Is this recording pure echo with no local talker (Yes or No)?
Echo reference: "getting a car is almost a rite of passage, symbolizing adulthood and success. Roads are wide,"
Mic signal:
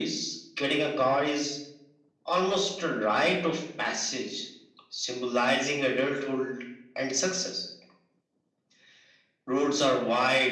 Yes